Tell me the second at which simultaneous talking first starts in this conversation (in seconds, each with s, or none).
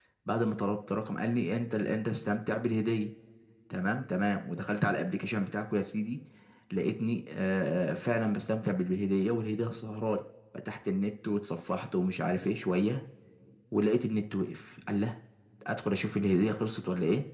none